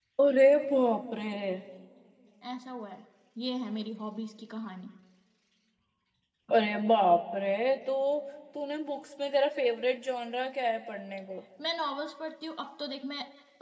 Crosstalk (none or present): none